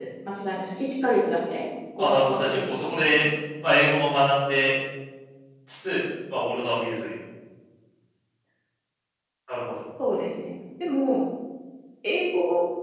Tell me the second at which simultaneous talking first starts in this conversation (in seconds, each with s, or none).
2.0 s